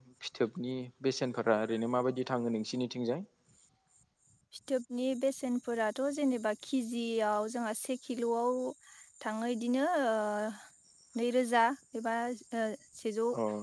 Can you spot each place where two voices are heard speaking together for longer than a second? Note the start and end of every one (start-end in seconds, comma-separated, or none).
none